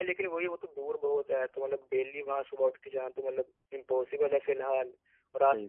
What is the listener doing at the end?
listening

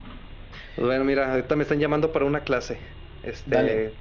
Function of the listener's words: listening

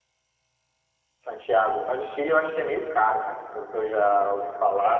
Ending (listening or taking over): taking over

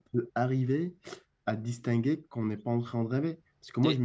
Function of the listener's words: listening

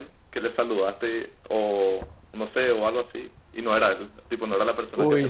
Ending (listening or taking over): taking over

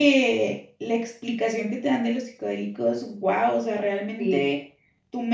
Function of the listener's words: listening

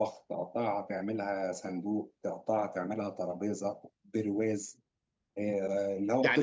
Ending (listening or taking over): taking over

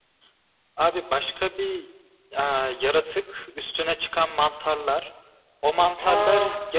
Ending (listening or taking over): listening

